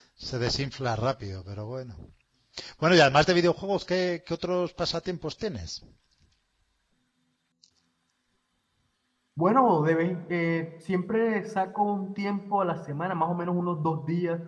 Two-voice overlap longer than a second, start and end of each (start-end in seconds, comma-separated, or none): none